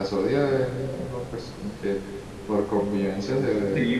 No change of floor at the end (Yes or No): No